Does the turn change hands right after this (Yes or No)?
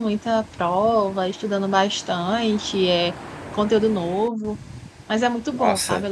No